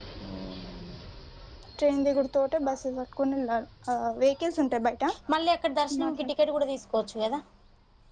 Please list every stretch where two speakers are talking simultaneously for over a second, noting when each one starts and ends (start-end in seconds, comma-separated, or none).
none